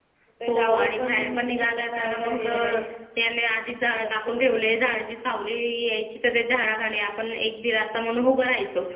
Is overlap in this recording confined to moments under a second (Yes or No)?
No